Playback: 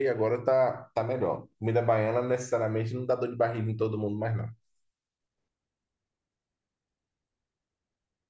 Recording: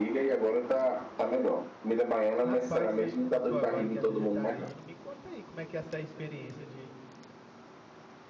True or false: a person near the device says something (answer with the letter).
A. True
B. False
A